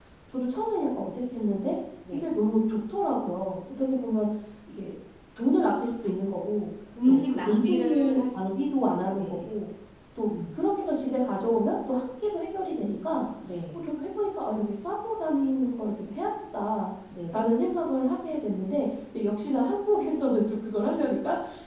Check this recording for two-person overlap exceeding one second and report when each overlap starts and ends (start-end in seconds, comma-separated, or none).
7.0-8.5